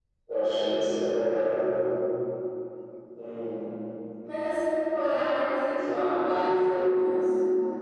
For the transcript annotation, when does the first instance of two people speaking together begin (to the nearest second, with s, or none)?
6 s